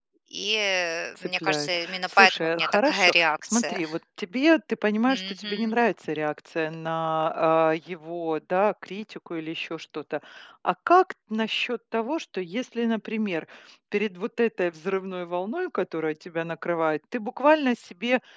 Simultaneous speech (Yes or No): Yes